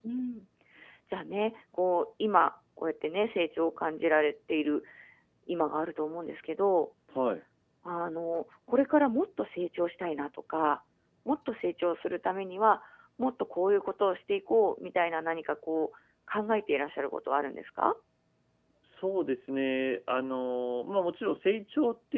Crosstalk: none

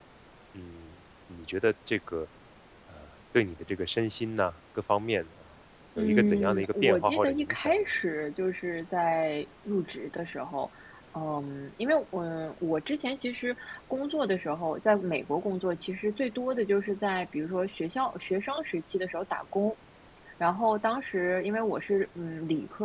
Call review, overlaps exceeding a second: present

